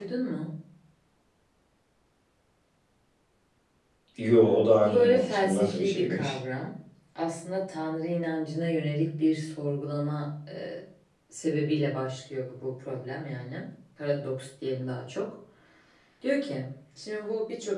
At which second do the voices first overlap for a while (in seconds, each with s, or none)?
4.8 s